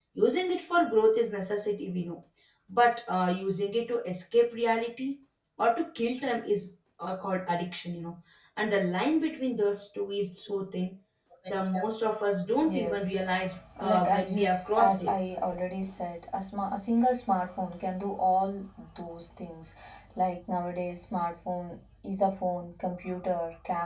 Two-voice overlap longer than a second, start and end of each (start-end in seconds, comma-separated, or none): 13.9-15.1